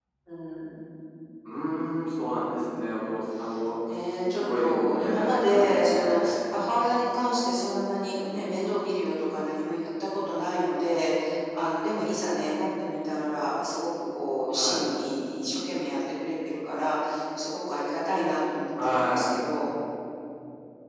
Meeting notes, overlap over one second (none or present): present